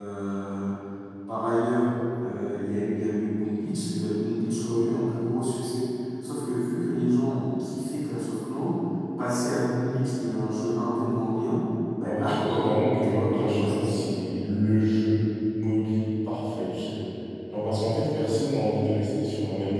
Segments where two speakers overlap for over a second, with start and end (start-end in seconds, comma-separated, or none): 12.1-14.0